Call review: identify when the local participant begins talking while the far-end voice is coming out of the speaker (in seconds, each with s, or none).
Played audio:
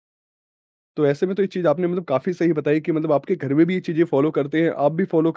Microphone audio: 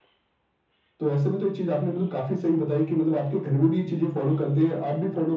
none